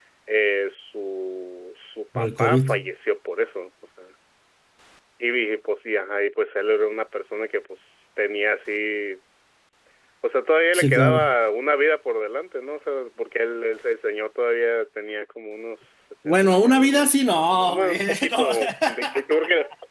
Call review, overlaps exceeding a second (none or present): present